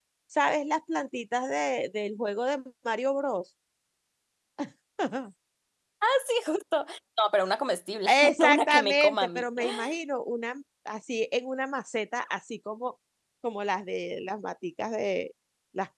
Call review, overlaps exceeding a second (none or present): present